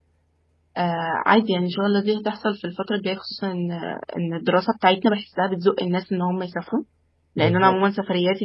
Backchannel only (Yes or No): Yes